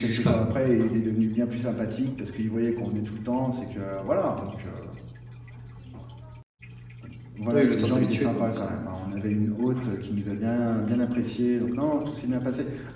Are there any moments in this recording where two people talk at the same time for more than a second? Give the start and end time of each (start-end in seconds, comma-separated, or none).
7.5-8.8